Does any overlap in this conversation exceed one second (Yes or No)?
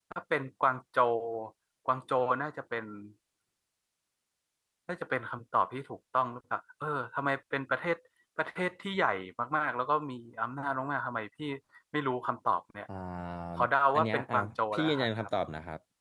Yes